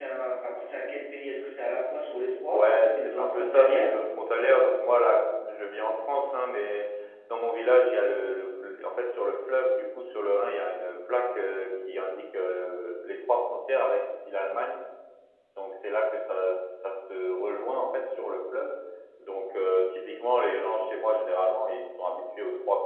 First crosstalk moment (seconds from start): 3 s

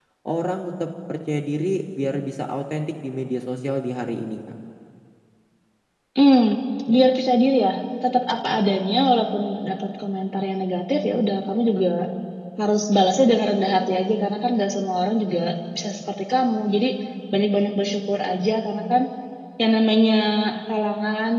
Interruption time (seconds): none

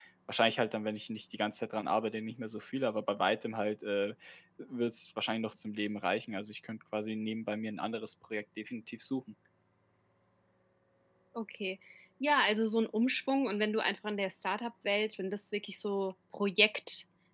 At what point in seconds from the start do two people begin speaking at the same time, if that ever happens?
none

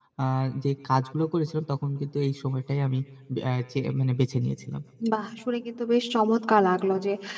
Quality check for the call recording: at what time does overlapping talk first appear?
none

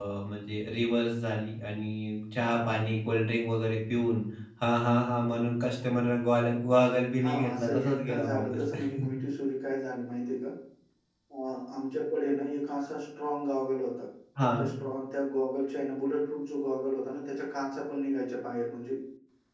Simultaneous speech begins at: 7 s

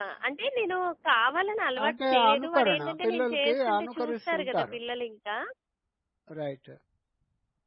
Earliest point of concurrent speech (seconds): 2 s

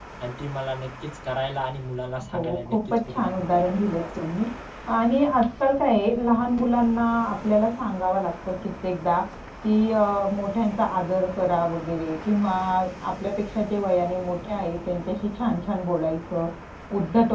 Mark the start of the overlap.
2 s

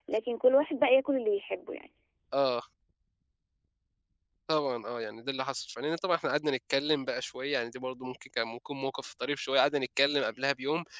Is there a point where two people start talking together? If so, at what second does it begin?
none

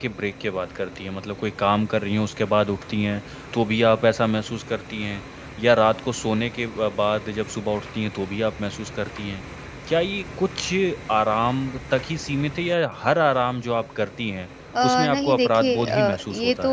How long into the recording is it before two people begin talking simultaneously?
15 s

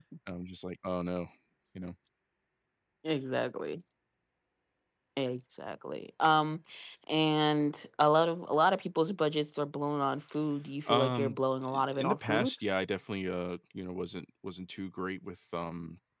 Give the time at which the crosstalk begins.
11 s

